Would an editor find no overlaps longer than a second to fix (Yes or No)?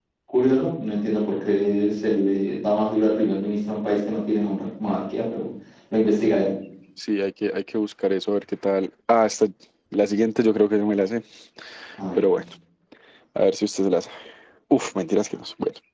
Yes